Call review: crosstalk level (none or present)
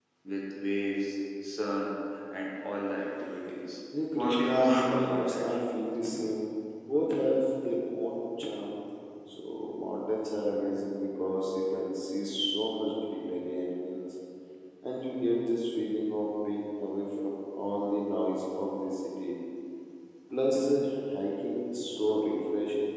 present